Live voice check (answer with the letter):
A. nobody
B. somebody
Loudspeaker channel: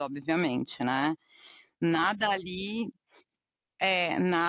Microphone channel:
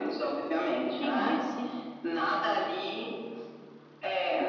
B